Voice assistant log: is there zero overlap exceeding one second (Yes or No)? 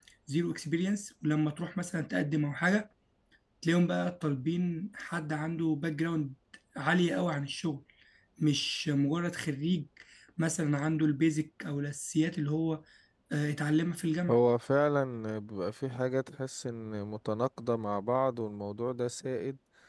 Yes